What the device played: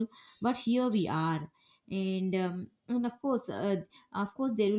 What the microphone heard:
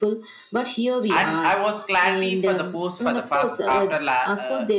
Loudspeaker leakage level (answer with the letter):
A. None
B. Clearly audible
B